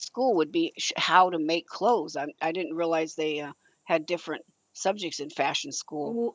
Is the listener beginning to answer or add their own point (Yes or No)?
Yes